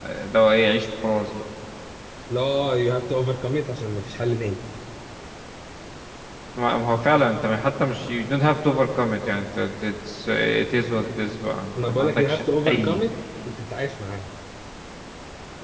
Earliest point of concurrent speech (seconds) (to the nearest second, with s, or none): 12 s